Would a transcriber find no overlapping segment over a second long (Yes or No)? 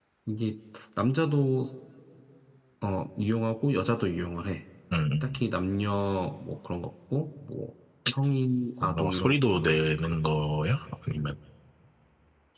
No